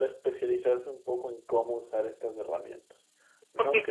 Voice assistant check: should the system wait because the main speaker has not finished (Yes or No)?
No